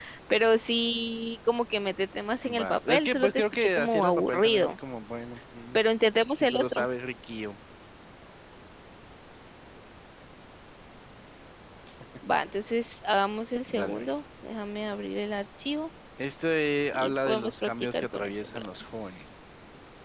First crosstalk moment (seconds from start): 2.4 s

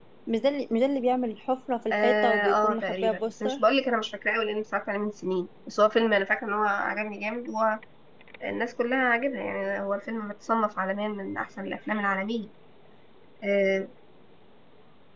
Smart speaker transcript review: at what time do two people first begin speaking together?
1.9 s

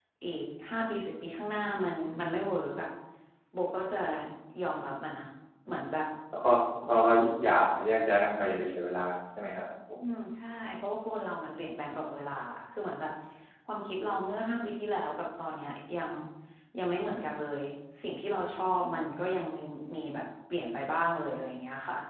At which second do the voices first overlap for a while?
none

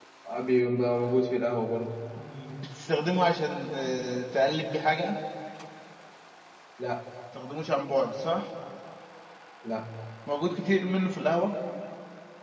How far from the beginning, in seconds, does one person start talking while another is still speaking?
none

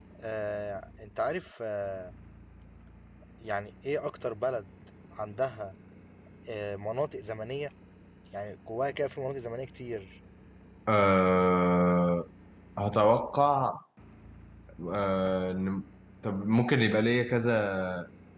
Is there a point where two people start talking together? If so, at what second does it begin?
none

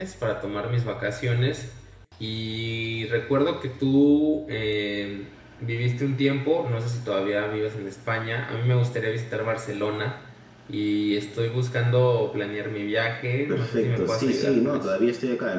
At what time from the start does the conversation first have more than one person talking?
13.5 s

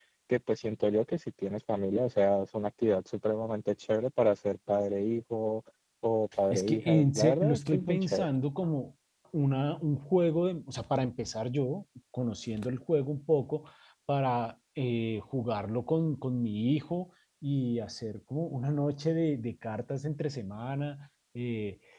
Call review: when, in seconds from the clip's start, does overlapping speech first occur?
6.5 s

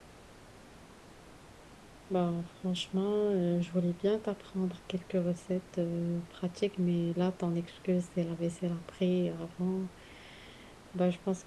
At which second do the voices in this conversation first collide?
none

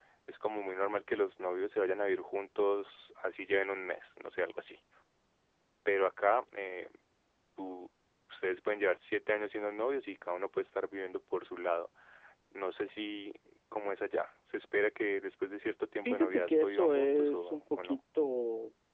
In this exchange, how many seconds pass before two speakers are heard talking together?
16.0 s

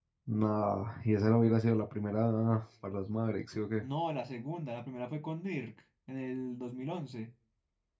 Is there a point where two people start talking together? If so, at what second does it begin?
none

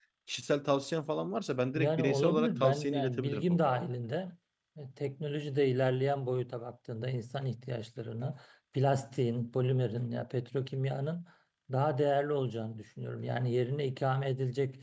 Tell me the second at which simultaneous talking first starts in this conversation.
1.8 s

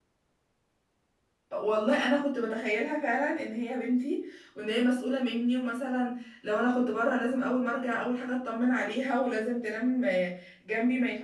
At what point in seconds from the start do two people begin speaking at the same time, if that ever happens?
none

